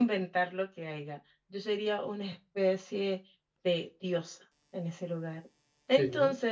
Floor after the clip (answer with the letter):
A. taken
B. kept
B